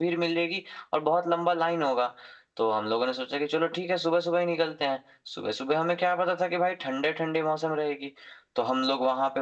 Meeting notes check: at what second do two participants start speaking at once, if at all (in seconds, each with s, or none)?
none